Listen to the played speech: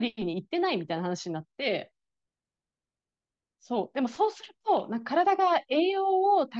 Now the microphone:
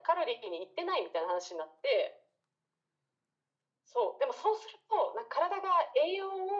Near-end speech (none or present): none